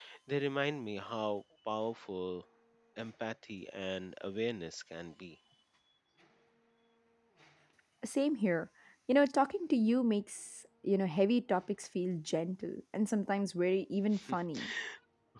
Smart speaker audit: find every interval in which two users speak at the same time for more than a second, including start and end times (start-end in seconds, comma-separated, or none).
none